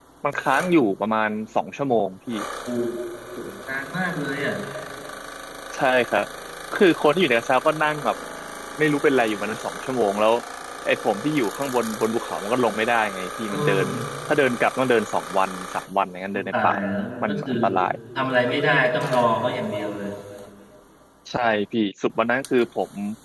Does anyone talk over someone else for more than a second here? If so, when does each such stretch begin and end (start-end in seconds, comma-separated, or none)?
none